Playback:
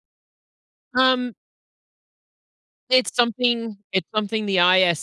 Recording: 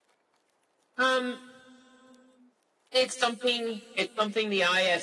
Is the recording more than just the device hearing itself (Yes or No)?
No